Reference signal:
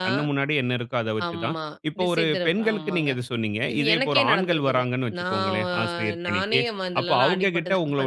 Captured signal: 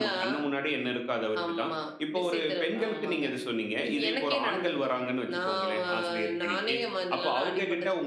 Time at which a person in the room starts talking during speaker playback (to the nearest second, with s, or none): none